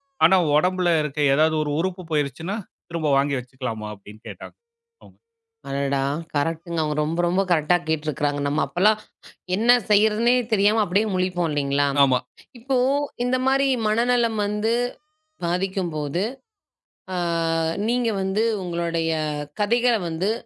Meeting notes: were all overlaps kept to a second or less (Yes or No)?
Yes